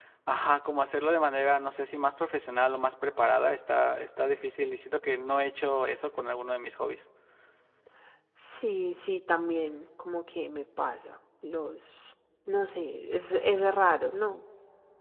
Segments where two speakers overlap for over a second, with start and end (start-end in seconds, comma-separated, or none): none